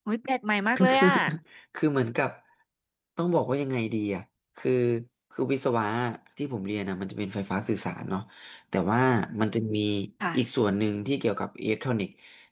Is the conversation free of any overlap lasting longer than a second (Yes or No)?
Yes